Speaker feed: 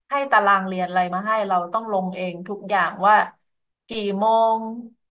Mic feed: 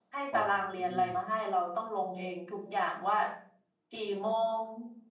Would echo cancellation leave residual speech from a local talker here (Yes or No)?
Yes